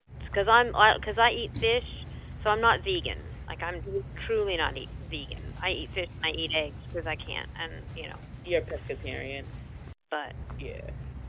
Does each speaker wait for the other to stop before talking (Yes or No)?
Yes